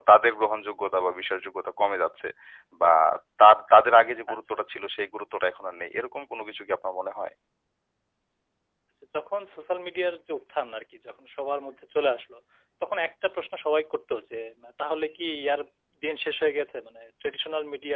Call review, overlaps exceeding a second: none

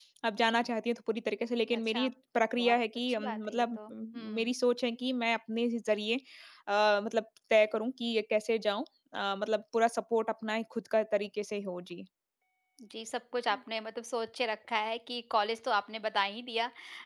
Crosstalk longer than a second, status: present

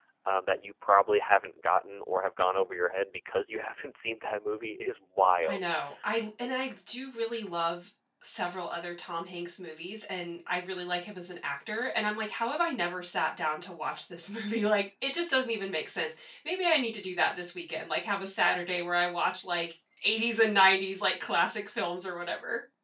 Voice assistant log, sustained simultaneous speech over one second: none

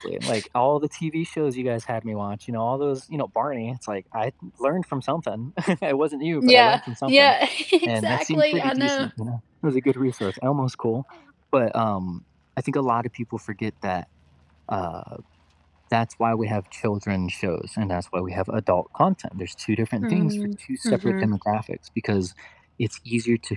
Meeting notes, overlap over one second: present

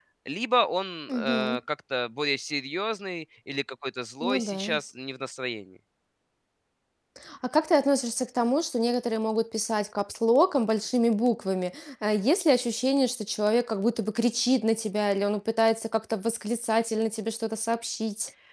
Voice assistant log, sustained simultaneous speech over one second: none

